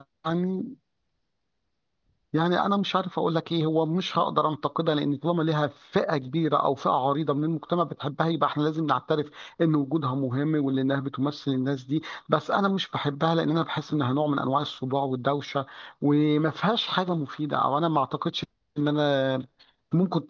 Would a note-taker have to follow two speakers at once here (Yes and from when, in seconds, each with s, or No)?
No